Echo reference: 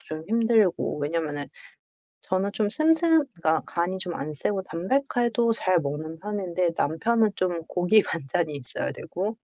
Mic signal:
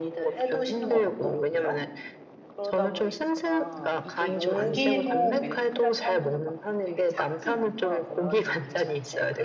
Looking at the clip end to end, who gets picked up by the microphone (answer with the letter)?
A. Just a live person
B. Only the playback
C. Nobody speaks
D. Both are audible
D